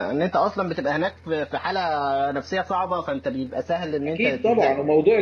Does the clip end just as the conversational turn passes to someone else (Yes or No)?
Yes